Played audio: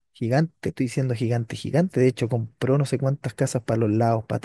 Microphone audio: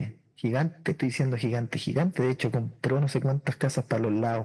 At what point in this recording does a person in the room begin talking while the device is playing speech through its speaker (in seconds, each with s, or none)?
none